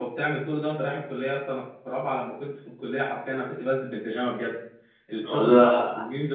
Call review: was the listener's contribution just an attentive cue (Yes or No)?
Yes